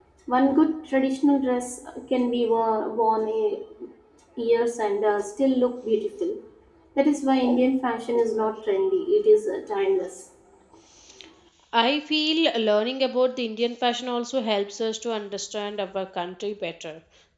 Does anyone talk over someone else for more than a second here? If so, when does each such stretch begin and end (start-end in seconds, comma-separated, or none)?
none